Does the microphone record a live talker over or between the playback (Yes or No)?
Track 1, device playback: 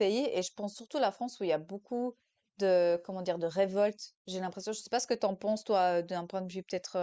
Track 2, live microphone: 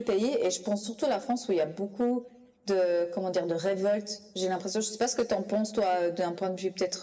No